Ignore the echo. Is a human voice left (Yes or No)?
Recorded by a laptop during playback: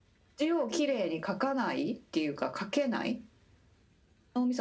No